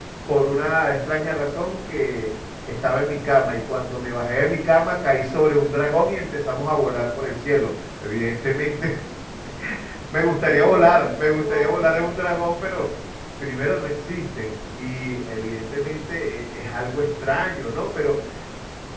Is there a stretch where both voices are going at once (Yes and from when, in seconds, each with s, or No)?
Yes, from 10.4 s